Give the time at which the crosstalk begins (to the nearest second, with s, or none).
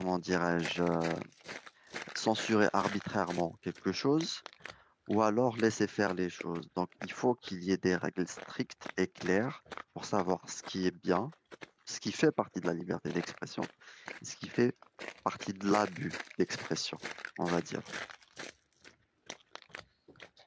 none